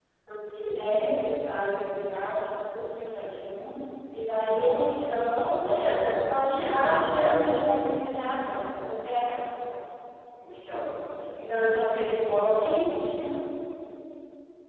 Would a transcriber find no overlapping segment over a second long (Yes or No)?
Yes